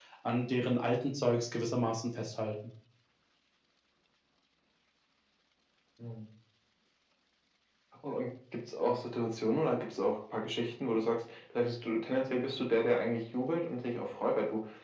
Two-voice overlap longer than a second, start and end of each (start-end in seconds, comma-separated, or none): none